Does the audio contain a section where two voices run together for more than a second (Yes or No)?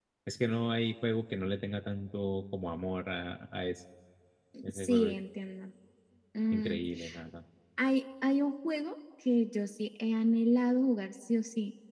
No